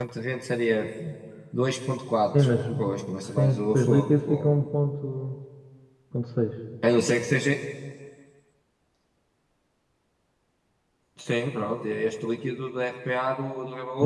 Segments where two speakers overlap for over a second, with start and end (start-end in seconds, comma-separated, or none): 3.3-4.6